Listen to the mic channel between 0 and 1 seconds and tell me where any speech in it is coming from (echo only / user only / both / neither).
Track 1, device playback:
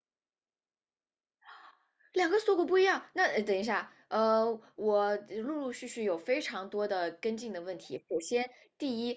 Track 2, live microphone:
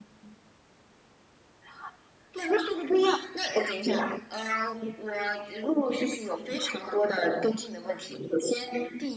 neither